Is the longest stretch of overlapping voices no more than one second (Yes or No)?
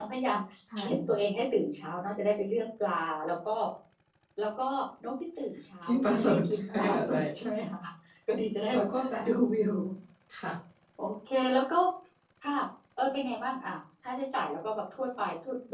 No